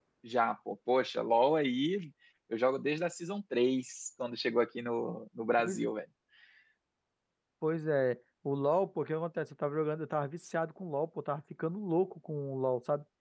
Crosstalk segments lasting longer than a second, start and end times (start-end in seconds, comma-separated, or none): none